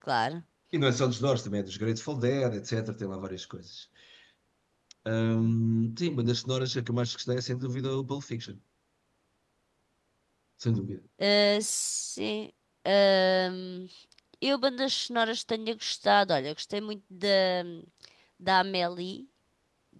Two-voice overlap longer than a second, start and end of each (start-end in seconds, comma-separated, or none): none